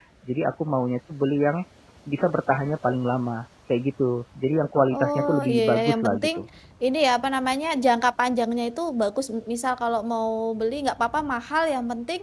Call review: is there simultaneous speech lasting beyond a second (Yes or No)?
Yes